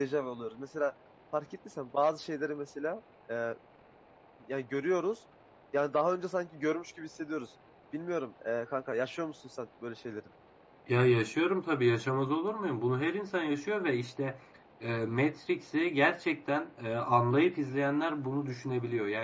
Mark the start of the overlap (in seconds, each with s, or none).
none